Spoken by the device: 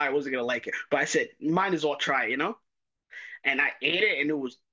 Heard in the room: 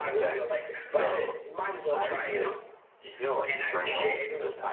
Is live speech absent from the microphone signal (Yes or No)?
No